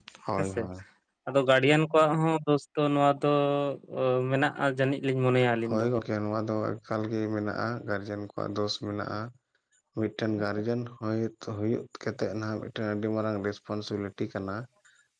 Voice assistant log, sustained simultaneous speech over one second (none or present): none